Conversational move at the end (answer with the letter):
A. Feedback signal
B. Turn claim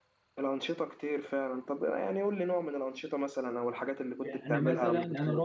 B